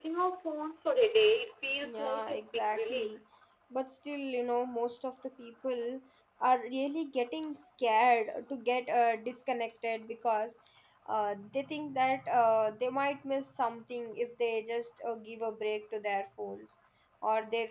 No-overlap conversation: No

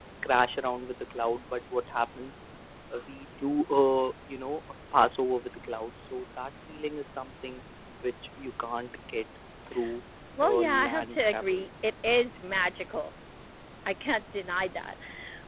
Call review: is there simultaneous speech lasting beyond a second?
Yes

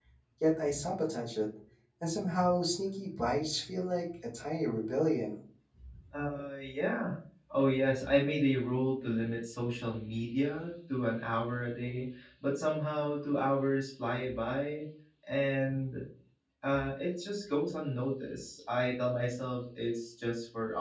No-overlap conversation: Yes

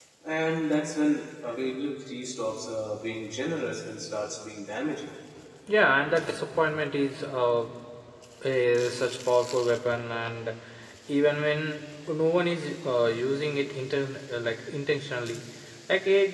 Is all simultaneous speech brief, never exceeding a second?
Yes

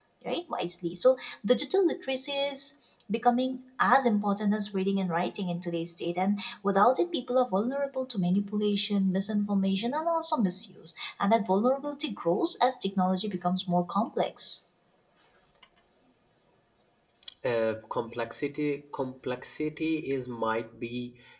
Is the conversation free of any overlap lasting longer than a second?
Yes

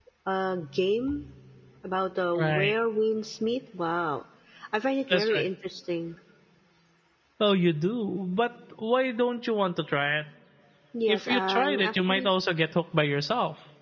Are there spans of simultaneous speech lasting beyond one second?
Yes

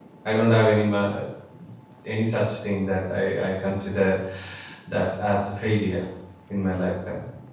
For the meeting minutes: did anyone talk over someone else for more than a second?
No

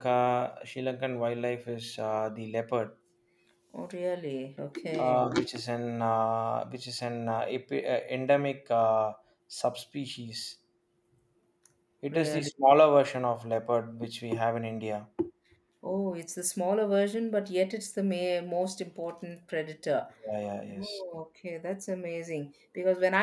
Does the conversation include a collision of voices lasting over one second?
No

